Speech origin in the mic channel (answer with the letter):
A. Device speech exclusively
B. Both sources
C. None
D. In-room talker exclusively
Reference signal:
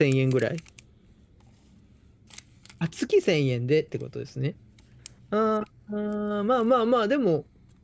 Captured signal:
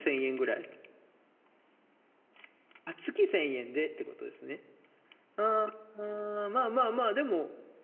A